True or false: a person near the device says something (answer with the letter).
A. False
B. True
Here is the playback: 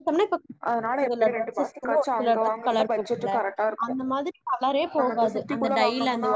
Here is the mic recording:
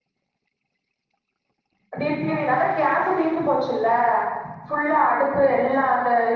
B